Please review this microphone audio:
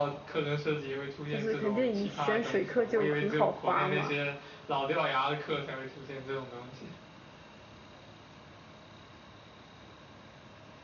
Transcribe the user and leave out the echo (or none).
就是肯定你选水课就很好划嘛，